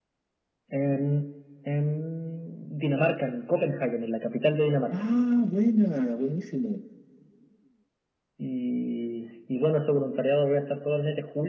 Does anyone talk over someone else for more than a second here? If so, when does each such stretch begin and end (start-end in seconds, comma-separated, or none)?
none